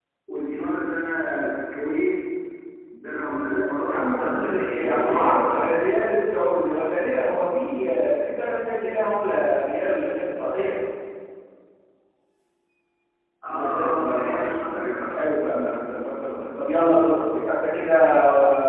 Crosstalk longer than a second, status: present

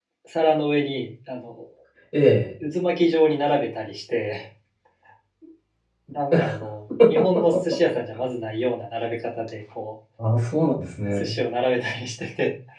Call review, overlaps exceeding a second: none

